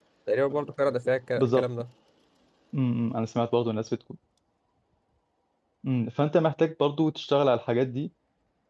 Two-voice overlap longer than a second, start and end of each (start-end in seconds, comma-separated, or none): none